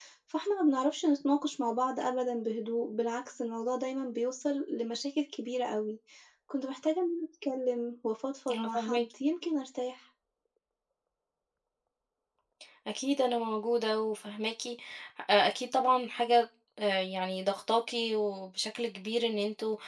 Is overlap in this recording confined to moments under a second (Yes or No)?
Yes